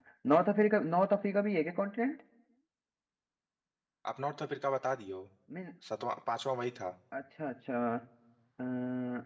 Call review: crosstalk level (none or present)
none